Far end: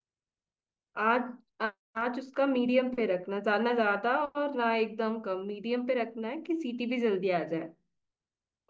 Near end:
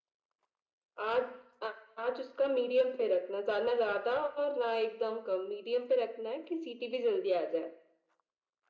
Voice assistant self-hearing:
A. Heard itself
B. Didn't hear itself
A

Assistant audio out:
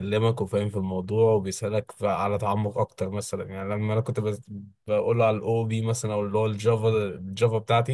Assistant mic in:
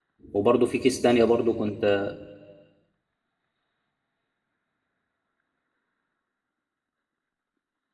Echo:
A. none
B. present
A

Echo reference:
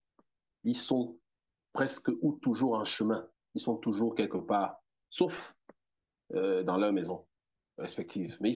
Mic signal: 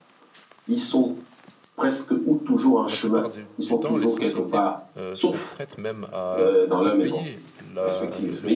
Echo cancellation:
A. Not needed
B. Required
B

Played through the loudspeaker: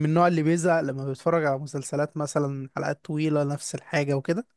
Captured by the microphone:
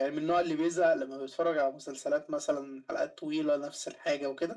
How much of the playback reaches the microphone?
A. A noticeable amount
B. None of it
A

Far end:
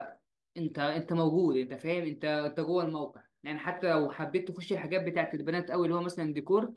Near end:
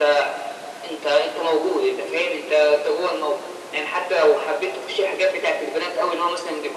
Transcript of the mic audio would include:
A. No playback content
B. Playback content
B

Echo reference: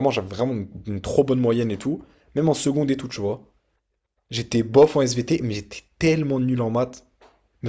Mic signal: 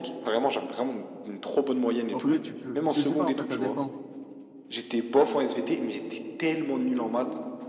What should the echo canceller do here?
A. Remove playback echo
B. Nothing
A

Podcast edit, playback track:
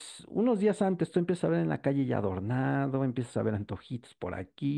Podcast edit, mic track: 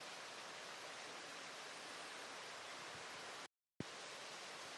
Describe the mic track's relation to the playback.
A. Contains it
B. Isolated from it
B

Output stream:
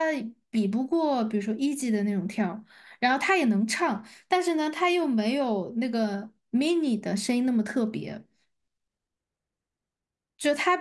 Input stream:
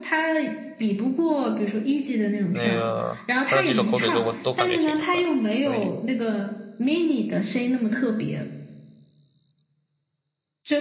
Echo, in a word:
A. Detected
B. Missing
A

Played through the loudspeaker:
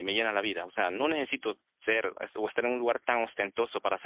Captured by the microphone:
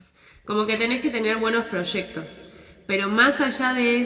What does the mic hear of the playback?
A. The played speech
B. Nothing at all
B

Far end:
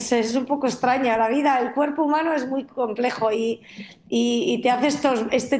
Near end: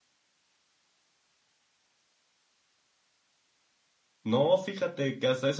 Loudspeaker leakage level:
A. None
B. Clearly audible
A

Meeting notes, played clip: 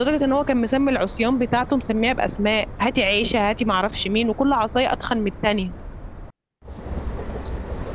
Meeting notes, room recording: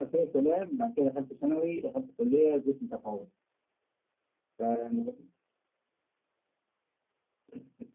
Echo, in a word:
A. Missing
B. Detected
A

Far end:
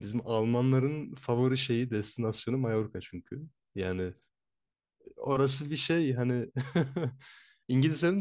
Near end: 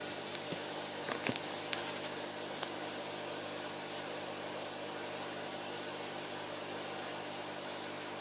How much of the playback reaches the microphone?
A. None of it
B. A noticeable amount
A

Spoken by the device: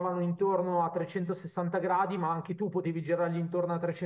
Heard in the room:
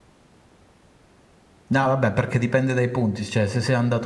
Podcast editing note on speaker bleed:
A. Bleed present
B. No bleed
B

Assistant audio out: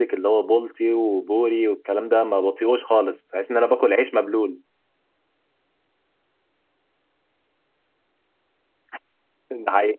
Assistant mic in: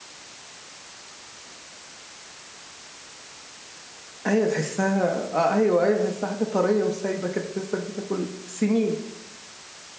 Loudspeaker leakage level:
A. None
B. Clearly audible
A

